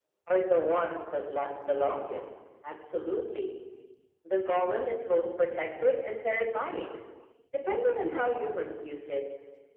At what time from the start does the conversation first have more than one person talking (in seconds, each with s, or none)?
none